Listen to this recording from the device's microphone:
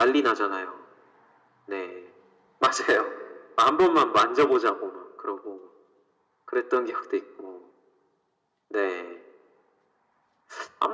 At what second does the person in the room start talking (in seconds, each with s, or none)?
none